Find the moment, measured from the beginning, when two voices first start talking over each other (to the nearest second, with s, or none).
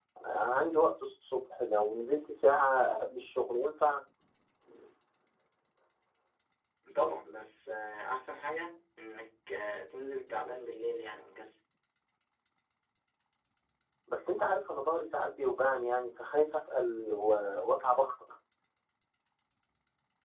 none